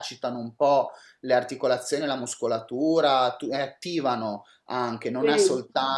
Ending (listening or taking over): listening